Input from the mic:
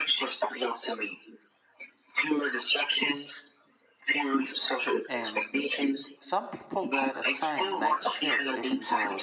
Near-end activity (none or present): present